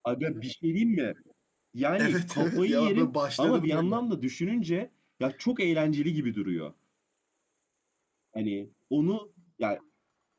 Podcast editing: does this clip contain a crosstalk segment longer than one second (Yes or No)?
Yes